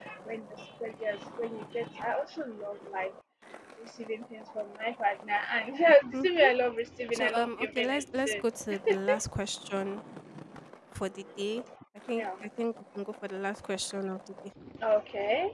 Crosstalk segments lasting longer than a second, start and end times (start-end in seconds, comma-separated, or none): 7.2-8.4